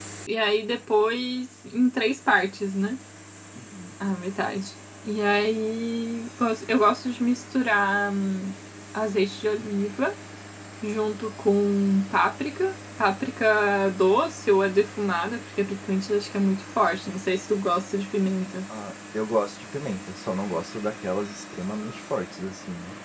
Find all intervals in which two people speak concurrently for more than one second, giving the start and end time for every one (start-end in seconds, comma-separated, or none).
none